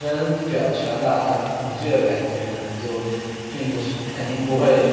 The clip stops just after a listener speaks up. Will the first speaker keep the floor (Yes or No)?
Yes